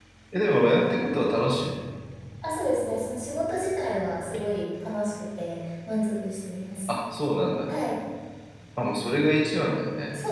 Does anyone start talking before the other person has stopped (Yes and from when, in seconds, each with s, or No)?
No